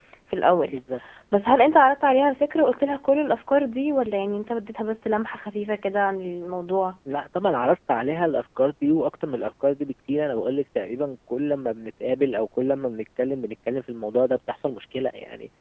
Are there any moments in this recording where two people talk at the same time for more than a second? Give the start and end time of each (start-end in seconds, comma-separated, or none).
none